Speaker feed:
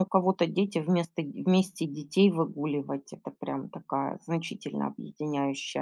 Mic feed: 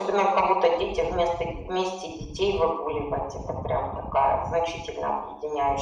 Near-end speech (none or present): none